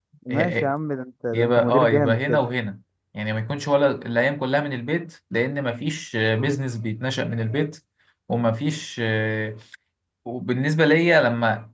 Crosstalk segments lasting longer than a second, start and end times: 1.3-2.5

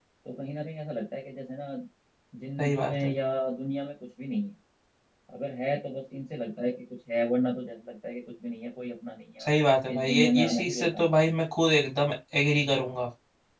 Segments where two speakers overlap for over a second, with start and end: 9.9-11.1

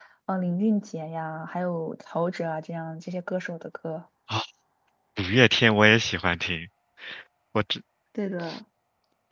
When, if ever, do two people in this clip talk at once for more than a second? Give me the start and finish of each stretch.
none

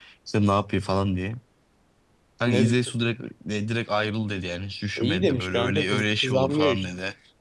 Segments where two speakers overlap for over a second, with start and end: 5.0-6.9

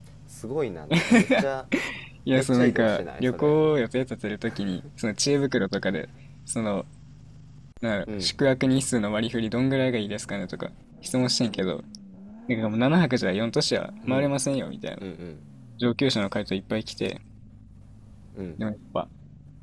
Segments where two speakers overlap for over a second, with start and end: 2.3-3.6

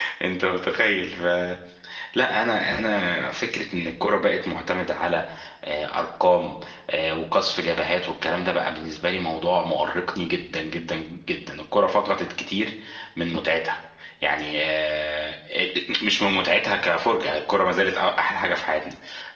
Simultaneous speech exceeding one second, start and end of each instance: none

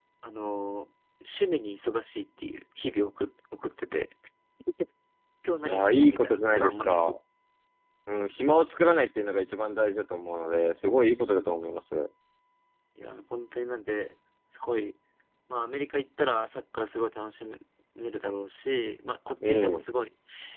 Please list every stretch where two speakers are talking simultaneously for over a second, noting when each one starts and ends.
5.7-7.1

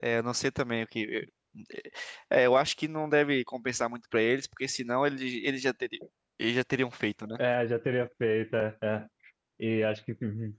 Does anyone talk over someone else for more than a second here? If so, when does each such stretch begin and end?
none

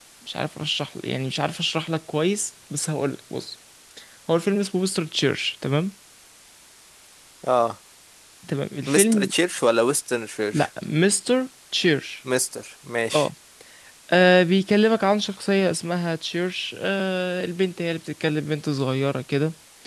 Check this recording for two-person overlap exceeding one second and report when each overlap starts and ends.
none

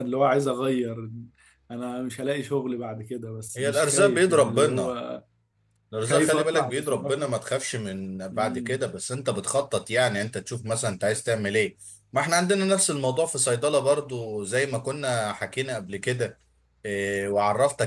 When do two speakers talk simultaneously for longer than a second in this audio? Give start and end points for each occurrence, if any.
3.6-4.9, 6.1-7.3

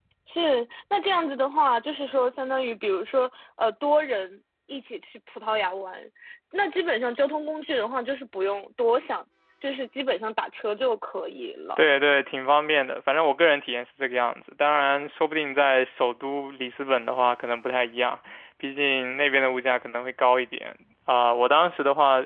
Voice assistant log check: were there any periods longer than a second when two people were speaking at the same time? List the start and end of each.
none

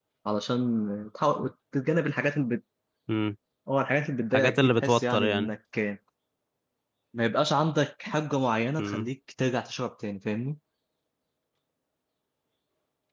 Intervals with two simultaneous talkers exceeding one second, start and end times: 4.3-5.5

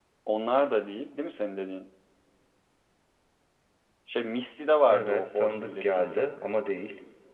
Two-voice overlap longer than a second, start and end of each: 4.9-6.3

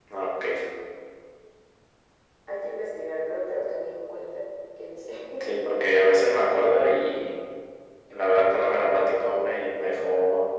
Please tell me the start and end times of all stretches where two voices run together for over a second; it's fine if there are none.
none

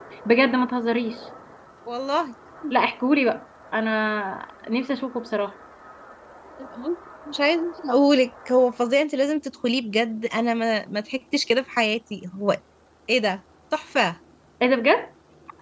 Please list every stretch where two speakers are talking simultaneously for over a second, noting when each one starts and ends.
none

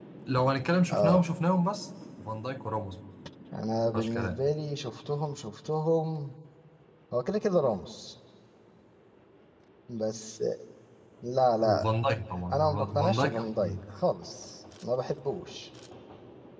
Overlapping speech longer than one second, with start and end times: 12.5-13.8

